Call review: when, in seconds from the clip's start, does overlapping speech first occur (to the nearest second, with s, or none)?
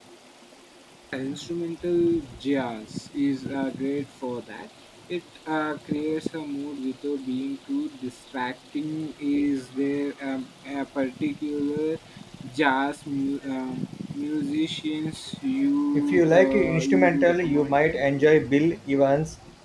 16 s